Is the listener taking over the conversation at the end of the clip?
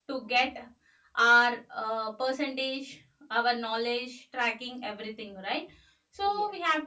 No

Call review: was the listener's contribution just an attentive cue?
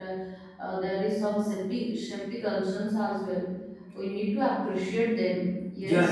No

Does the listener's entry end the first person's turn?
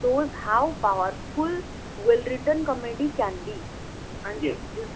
No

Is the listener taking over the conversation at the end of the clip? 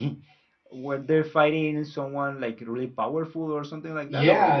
Yes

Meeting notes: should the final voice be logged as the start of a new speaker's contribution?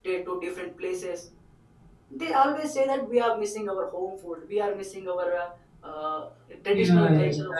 Yes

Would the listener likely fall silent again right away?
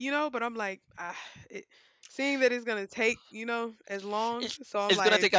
No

